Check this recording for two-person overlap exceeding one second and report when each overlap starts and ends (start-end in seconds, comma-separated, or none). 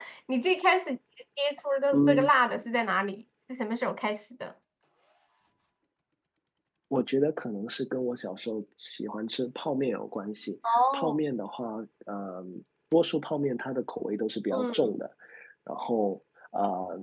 none